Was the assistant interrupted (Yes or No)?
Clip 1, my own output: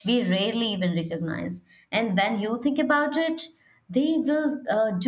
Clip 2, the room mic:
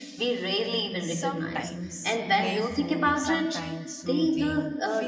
Yes